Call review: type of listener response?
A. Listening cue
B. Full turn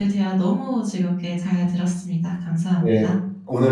B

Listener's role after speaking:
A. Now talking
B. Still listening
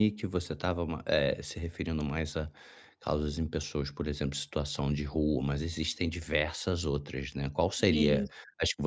B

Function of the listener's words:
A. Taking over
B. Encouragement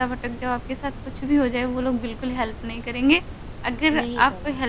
B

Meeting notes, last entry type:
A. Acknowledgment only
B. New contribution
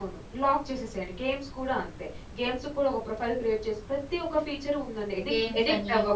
B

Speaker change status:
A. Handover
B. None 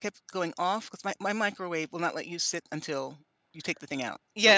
A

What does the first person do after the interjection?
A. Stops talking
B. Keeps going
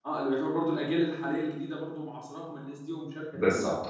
A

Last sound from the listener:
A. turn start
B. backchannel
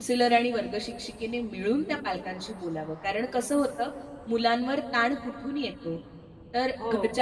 B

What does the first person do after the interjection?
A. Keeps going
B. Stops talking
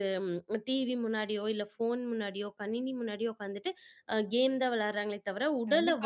B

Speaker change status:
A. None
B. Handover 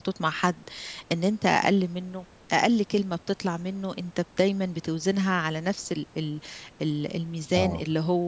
A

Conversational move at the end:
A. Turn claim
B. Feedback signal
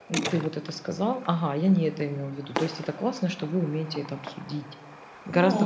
A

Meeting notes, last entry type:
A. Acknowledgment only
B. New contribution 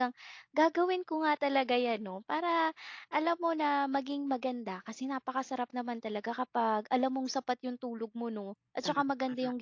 A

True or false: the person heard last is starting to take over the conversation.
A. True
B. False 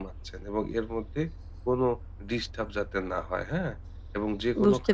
B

